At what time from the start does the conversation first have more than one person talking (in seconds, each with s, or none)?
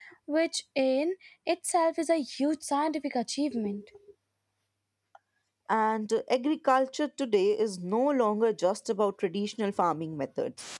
none